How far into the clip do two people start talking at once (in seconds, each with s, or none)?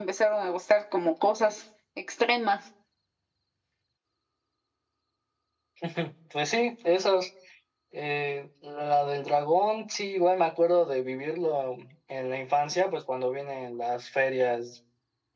none